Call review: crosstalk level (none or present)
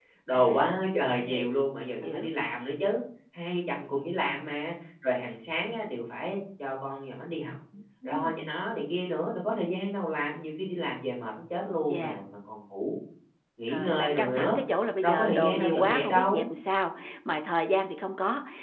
present